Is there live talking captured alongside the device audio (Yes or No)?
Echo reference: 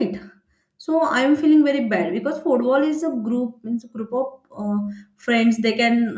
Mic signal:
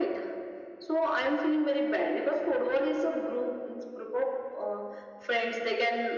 No